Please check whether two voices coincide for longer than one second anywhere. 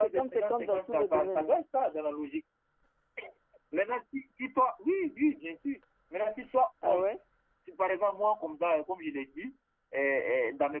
Yes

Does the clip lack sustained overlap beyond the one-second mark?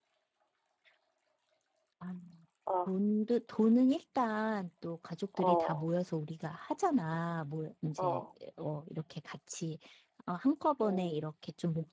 Yes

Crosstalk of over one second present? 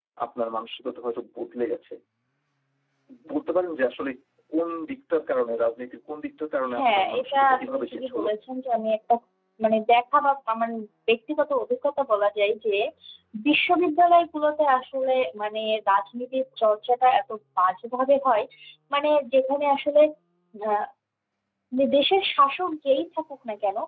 Yes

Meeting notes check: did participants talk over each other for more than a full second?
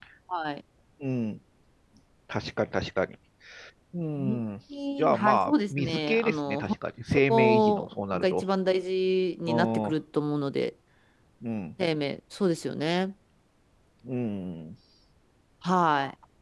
Yes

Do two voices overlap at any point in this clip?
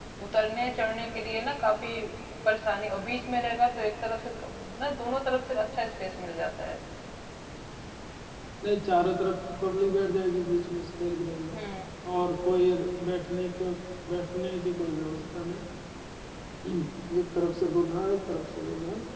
No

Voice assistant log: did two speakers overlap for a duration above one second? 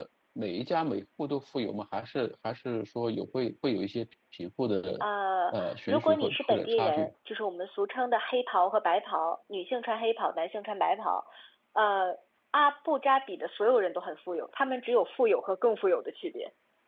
Yes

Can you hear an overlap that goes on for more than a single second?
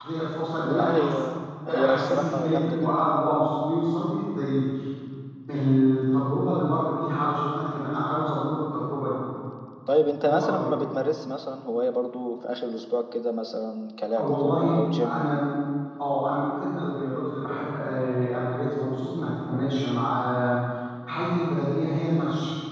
Yes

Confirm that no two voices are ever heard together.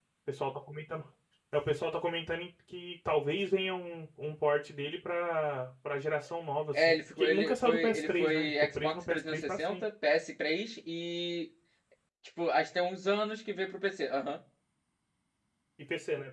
No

